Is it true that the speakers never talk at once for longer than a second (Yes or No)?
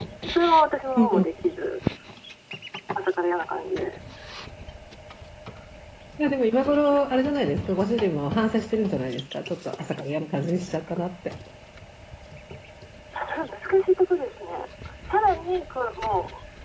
Yes